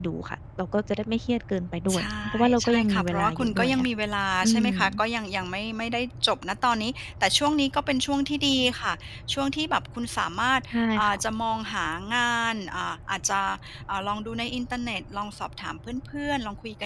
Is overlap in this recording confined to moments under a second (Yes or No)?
No